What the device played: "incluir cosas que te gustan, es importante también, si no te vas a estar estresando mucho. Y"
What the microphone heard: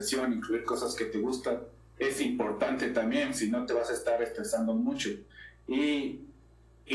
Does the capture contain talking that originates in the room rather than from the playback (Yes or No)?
No